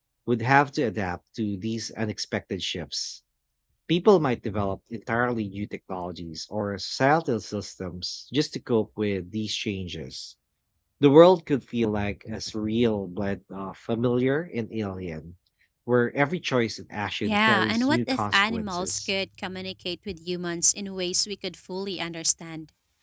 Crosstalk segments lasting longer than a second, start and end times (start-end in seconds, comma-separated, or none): 17.2-19.1